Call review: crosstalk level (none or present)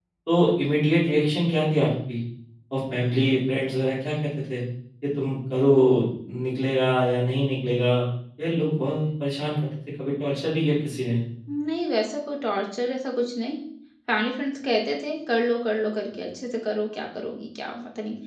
none